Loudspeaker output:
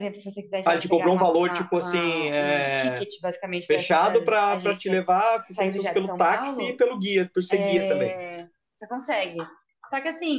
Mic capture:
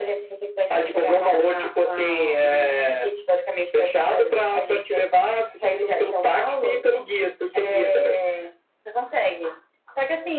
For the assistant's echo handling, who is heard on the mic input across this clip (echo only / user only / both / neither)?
echo only